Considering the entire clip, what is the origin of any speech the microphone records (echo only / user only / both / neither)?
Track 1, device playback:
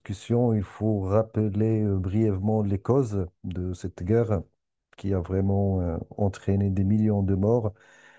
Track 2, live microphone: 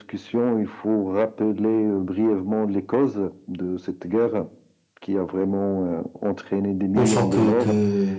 both